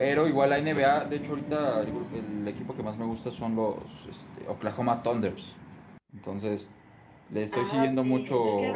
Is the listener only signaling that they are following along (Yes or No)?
No